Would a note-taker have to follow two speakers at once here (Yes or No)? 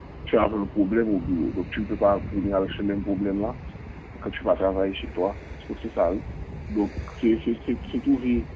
No